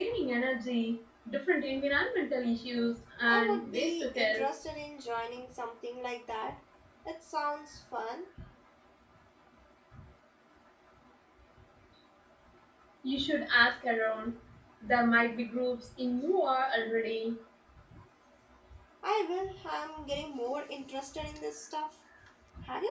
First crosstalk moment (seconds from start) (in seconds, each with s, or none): 3.2 s